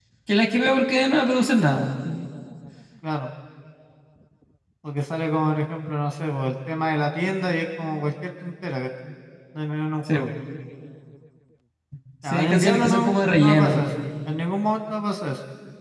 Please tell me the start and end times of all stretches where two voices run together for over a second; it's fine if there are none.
12.3-13.8

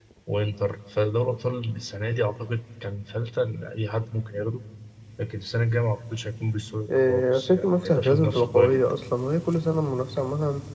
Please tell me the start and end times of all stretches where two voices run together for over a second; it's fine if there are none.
6.9-8.9

